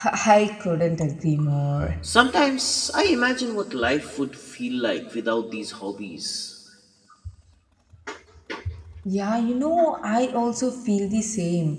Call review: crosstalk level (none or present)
none